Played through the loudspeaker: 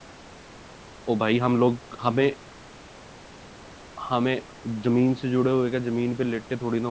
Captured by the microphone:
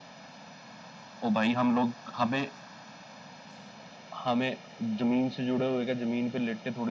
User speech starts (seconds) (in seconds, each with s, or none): none